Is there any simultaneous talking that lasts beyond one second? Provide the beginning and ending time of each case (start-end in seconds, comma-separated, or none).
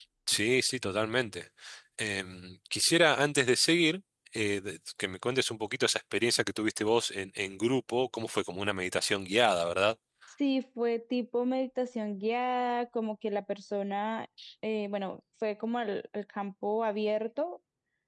none